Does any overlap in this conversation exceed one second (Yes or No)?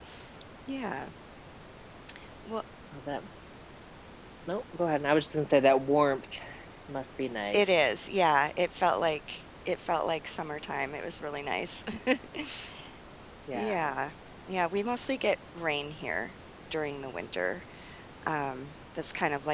No